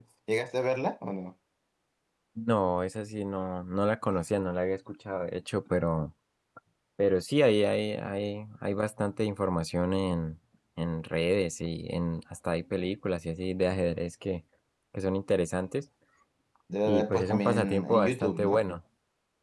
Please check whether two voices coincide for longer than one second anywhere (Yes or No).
Yes